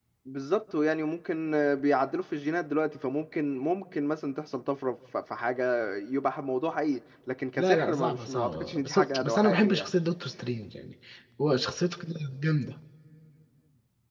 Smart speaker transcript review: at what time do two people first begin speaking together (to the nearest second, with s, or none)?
8 s